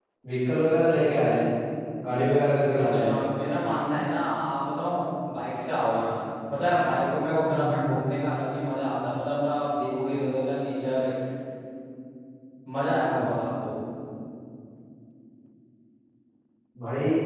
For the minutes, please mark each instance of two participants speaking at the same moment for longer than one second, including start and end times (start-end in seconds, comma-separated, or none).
none